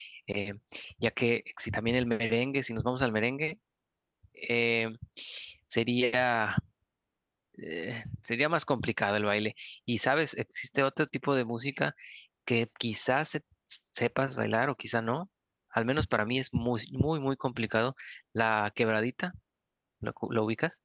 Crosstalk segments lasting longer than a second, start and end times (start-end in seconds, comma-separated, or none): none